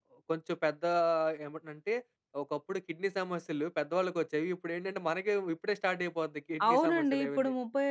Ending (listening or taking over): taking over